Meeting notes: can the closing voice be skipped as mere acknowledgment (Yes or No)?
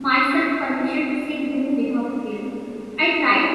Yes